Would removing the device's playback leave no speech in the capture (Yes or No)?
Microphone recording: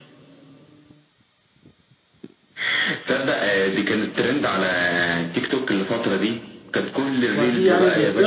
No